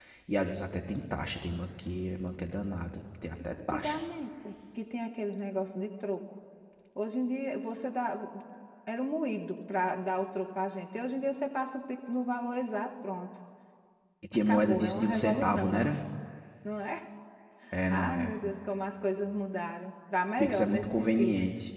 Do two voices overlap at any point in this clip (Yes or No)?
Yes